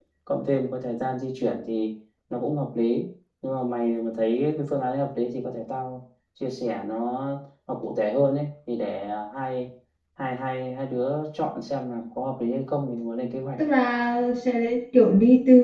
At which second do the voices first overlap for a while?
none

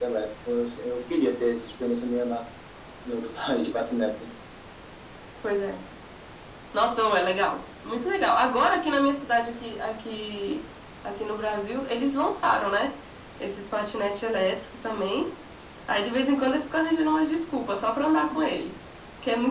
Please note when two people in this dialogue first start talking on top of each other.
none

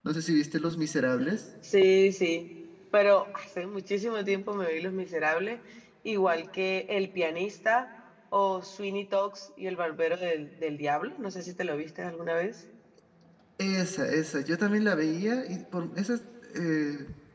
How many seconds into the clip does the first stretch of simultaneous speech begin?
none

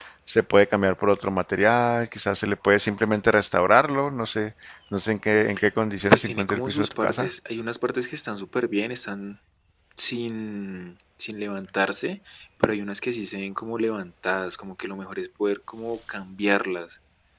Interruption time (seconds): 6 s

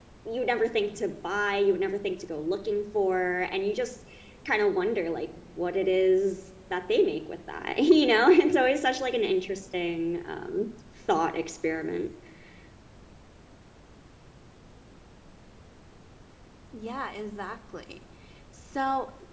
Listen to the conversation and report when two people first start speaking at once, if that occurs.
none

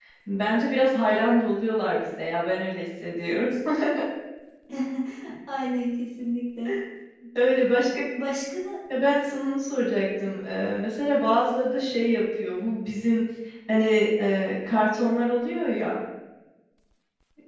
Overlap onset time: none

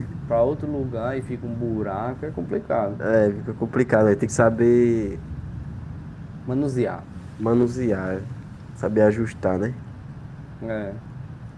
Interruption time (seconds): none

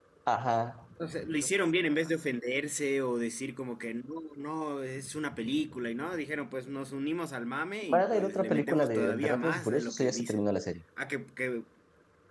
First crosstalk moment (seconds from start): 8 s

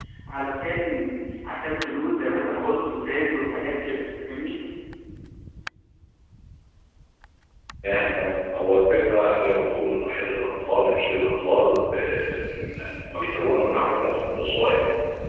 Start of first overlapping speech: none

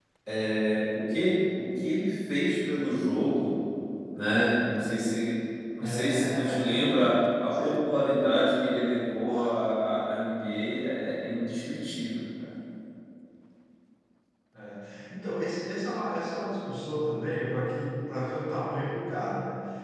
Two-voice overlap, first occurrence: 6 s

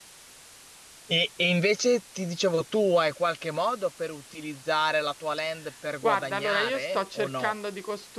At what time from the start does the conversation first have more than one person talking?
6 s

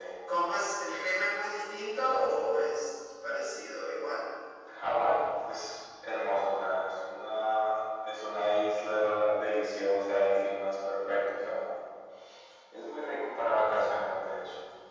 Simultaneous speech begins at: none

